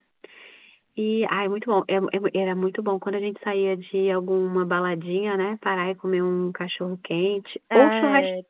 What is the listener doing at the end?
taking over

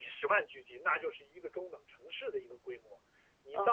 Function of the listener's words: taking over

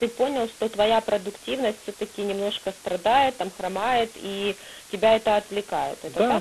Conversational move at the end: taking over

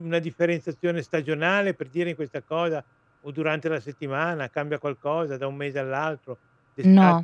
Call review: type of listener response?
listening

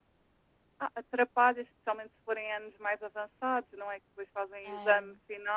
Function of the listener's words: listening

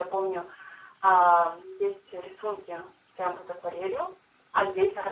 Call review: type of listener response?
listening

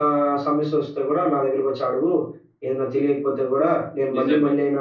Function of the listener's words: listening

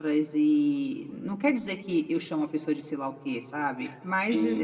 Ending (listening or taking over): taking over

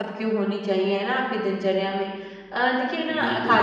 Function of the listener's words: listening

